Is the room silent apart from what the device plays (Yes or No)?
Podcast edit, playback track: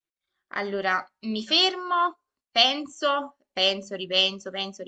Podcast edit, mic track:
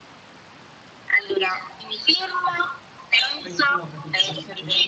No